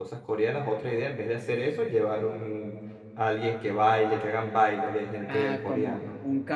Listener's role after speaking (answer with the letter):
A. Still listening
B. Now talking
B